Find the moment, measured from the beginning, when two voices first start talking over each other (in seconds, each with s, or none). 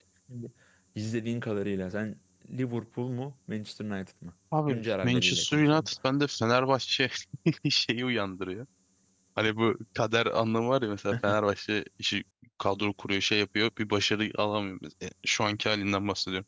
4.5 s